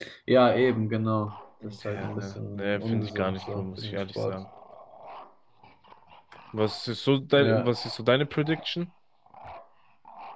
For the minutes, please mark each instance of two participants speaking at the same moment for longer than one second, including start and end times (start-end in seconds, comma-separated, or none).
1.6-4.4